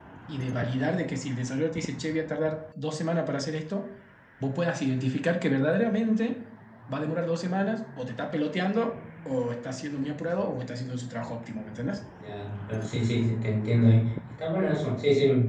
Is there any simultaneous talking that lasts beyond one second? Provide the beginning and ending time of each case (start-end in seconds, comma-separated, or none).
none